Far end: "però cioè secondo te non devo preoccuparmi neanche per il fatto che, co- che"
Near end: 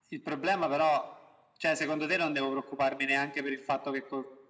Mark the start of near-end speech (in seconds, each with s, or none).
none